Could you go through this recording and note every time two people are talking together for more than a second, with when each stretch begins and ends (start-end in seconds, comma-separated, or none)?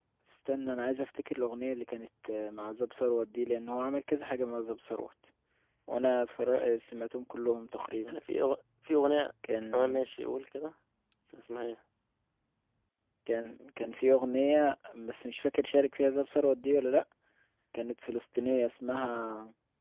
none